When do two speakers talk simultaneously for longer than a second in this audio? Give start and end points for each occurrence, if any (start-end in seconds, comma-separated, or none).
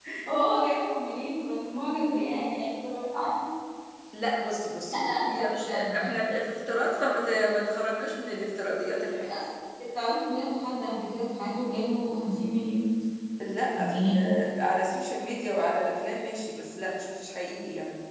4.9-6.1